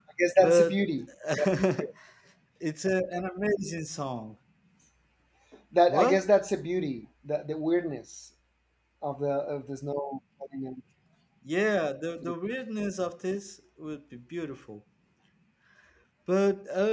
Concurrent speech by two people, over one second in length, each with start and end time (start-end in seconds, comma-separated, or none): none